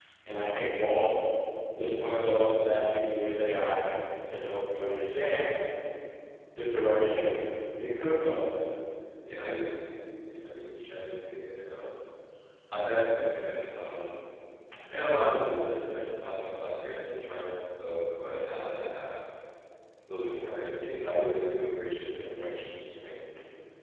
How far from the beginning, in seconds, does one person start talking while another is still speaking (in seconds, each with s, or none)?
none